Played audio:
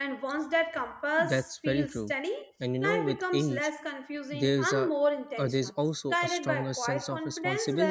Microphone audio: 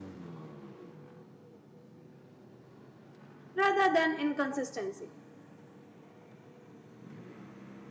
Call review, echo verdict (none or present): none